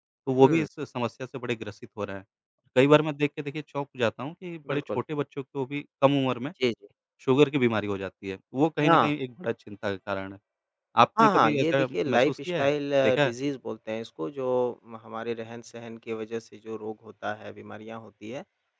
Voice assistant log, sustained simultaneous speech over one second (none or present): present